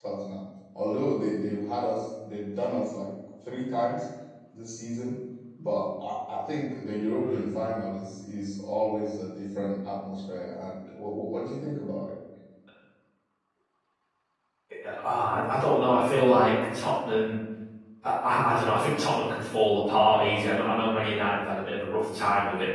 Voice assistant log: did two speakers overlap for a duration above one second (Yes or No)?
No